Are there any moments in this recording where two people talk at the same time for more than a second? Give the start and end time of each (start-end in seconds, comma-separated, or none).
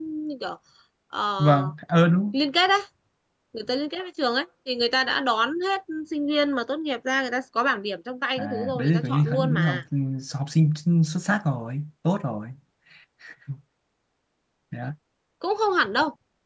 8.4-9.8